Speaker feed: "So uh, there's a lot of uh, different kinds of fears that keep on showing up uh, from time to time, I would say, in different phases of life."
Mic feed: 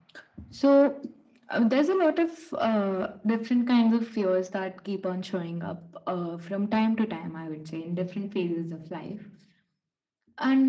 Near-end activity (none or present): none